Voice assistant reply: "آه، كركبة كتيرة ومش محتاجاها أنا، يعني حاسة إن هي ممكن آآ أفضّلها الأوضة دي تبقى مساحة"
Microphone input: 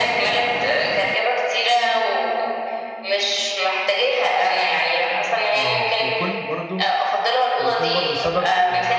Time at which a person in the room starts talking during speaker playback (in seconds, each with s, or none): 5.5 s